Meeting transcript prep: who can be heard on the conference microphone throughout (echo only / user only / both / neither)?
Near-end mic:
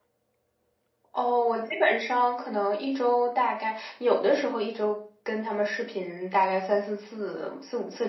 echo only